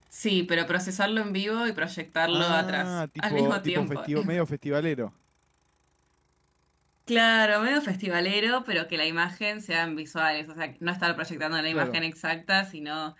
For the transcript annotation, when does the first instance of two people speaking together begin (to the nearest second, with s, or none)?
2 s